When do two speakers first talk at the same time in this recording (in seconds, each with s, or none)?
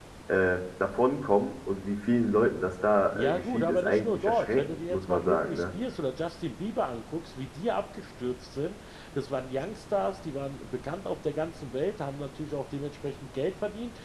3.1 s